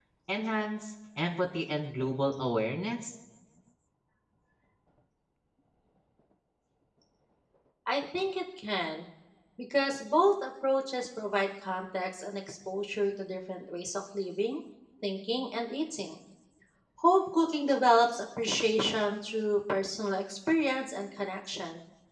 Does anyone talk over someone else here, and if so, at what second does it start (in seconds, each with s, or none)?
none